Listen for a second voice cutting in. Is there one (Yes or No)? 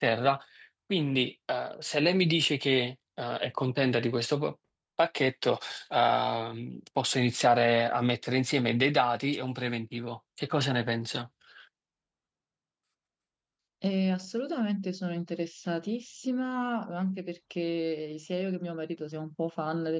No